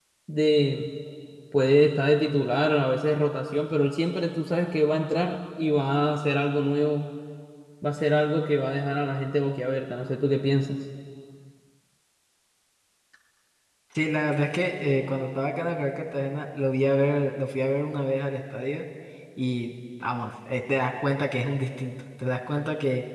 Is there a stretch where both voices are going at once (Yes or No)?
No